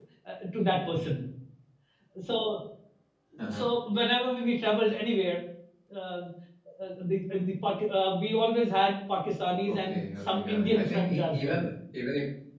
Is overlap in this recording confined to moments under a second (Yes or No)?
No